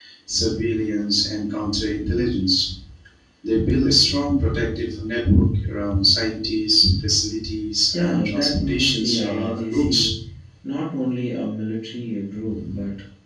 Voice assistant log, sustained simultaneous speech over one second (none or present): present